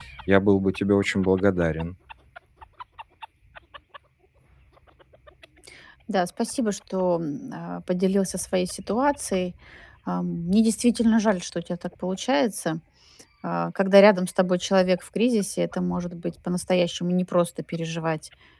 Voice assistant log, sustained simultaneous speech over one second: none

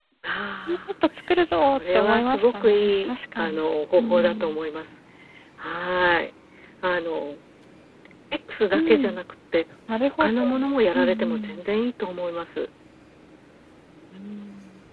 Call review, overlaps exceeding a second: present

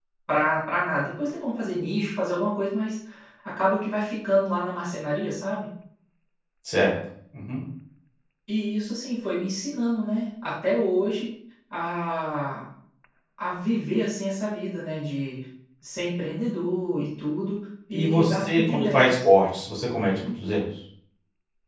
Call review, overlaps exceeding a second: present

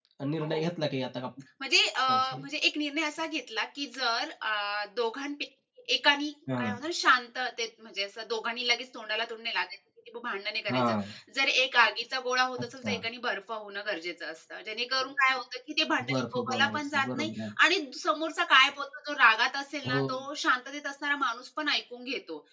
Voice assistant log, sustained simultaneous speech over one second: present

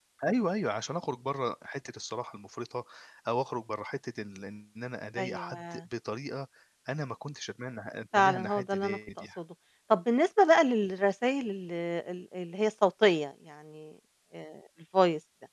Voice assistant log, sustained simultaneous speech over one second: present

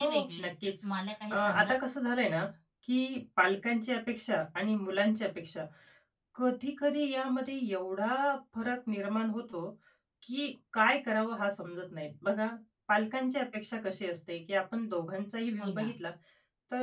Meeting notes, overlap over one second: none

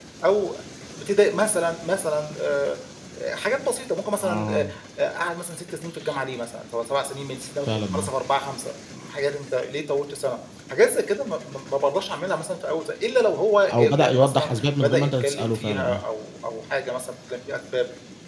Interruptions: present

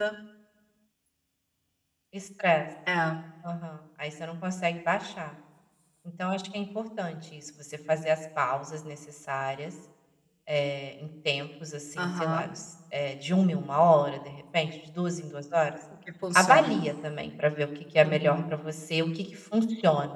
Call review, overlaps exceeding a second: none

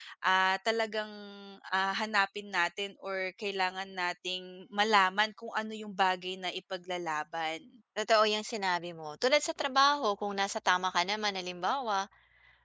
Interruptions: none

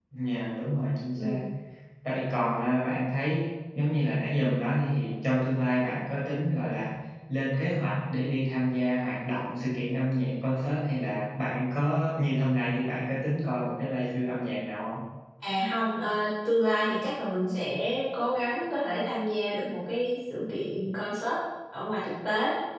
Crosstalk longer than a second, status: none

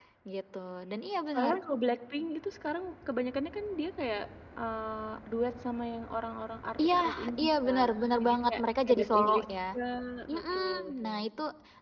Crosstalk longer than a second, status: present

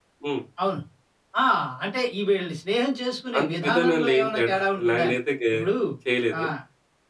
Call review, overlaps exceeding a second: present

